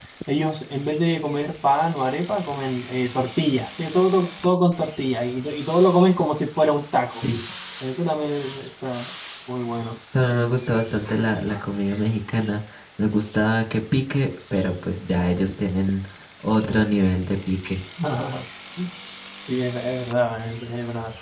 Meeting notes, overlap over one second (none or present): none